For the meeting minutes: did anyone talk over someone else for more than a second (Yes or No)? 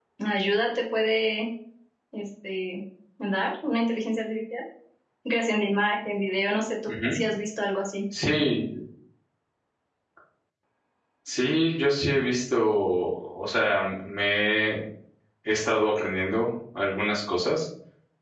No